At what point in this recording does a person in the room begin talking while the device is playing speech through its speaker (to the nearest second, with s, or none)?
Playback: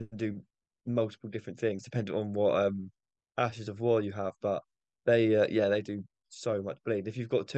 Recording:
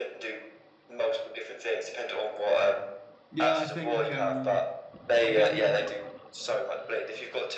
3 s